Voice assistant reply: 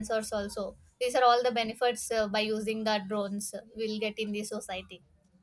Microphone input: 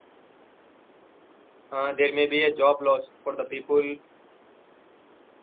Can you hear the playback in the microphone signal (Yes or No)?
No